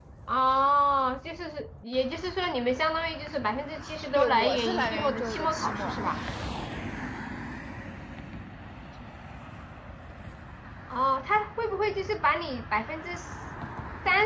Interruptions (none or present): present